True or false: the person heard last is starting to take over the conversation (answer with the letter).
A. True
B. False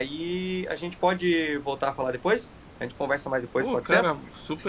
A